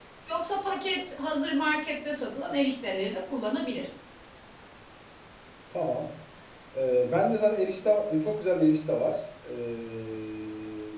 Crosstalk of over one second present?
No

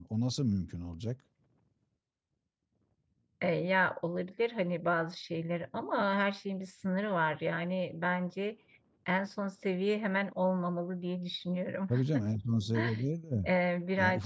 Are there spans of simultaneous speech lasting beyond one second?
No

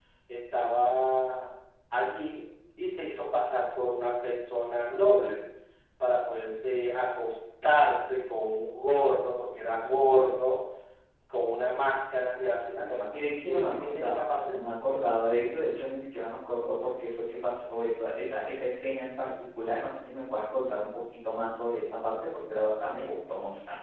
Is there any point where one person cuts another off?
Yes, from 13.1 s

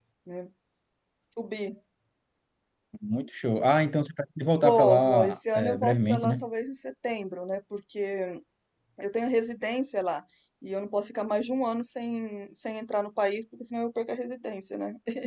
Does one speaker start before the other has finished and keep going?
Yes, from 4.6 s

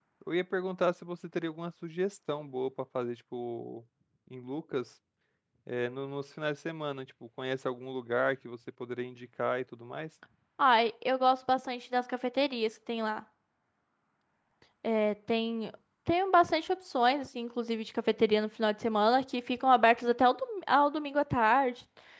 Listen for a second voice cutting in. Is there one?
No

